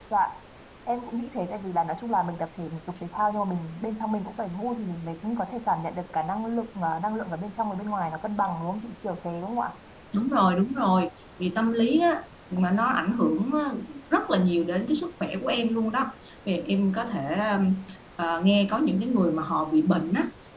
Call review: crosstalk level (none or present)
none